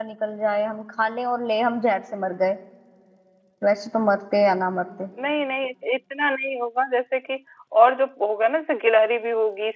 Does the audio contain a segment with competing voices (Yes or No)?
No